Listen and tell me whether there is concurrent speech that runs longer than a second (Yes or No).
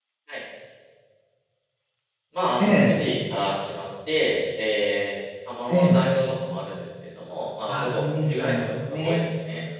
Yes